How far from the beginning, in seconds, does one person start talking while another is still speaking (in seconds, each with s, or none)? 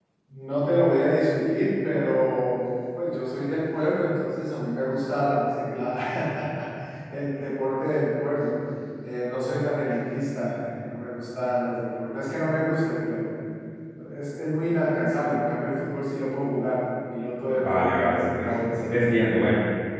17.5 s